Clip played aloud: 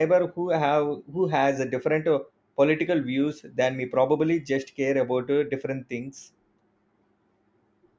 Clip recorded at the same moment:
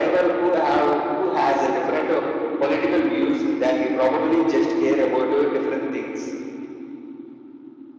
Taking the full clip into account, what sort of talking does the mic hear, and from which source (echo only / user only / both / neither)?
echo only